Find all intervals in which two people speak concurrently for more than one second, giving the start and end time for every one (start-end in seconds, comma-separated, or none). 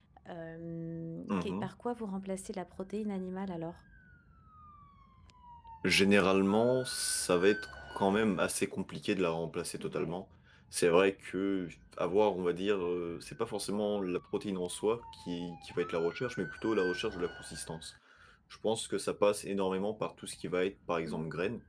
none